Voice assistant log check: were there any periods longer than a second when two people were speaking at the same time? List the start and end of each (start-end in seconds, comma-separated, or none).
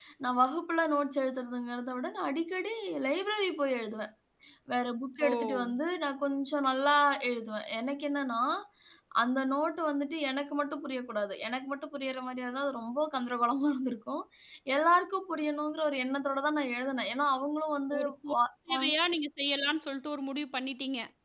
none